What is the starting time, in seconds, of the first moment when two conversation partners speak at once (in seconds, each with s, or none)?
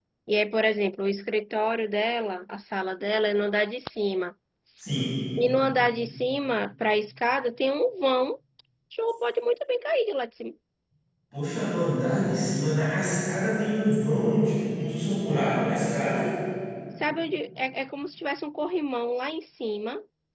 none